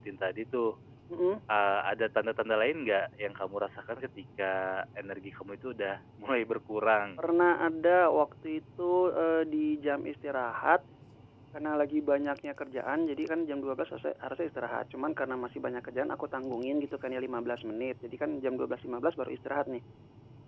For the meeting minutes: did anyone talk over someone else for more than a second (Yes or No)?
No